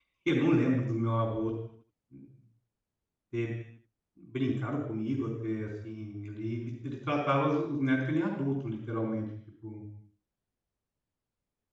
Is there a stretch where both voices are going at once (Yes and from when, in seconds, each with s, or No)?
No